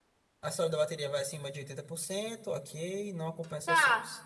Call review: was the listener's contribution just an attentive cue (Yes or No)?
No